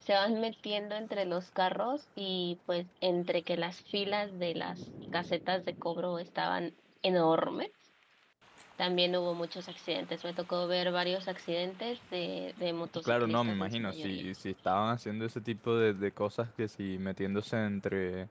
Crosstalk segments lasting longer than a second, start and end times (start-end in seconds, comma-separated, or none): 13.1-14.3